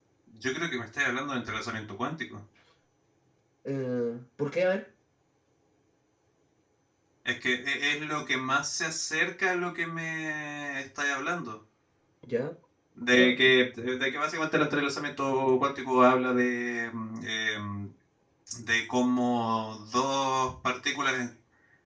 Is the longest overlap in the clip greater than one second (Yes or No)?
No